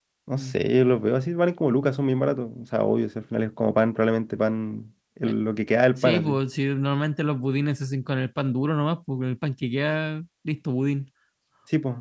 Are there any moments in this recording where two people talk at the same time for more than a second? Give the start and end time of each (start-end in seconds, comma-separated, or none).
none